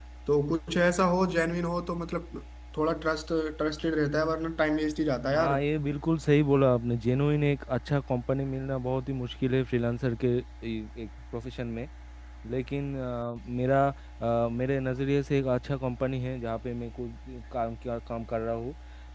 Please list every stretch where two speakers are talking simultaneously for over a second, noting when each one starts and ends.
none

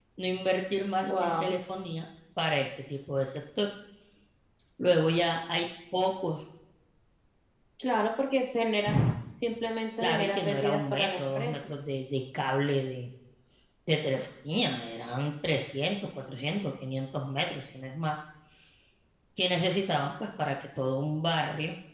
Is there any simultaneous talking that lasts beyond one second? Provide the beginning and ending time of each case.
10.0-11.6

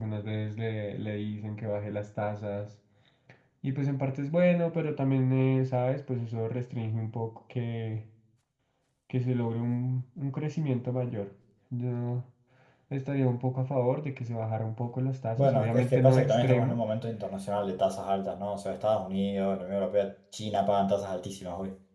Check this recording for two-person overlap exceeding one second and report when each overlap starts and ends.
15.4-16.8

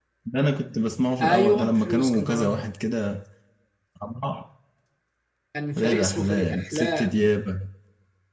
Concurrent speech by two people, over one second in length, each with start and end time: 1.2-2.6, 5.8-7.2

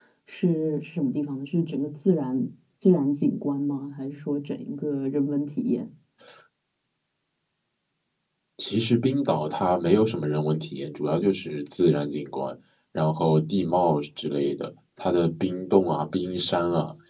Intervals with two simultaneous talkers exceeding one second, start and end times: none

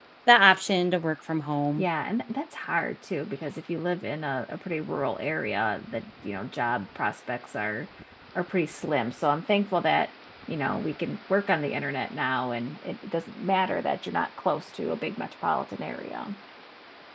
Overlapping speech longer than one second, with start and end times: none

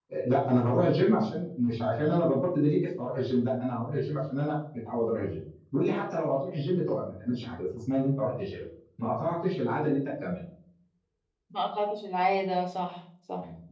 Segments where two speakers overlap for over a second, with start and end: none

